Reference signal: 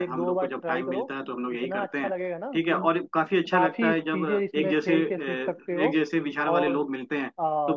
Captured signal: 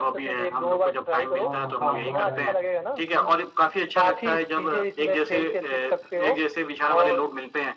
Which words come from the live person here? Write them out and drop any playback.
हाँ हाँ हाँ भाई

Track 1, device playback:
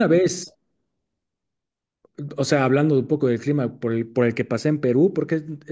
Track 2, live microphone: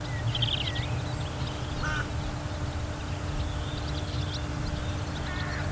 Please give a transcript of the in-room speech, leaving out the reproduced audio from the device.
none

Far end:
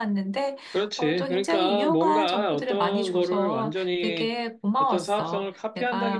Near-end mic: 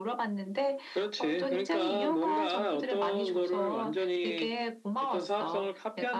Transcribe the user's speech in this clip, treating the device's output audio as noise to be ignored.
none

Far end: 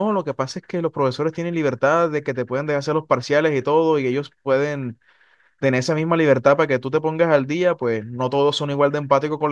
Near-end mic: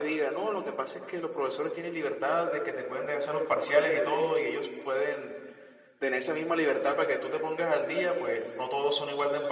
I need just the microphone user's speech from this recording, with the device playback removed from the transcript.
none

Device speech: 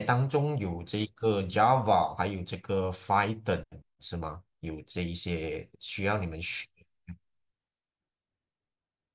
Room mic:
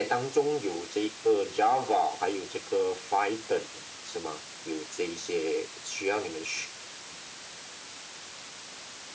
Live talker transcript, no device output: none

